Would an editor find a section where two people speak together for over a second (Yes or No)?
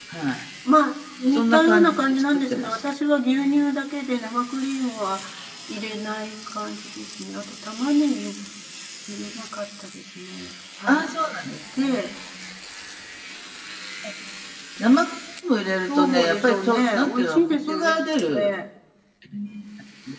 Yes